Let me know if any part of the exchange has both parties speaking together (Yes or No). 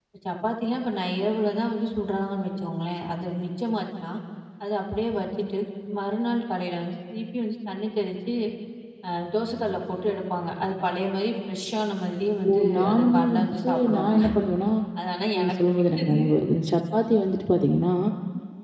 Yes